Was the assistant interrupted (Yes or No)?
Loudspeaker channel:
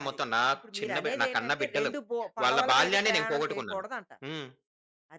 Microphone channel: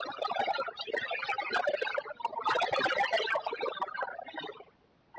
No